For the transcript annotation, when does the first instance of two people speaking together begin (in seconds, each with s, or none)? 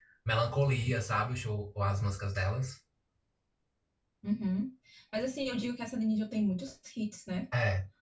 none